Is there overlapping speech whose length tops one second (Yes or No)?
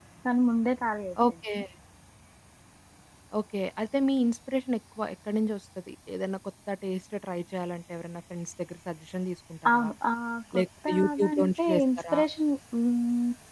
Yes